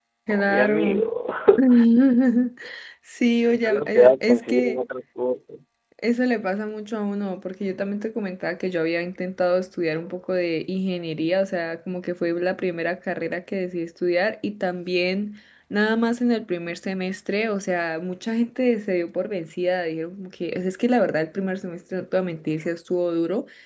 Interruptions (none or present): present